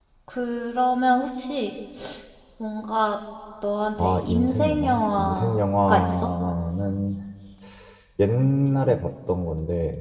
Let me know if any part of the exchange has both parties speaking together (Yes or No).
Yes